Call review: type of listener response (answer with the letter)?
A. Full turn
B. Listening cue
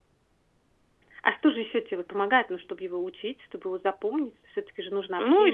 A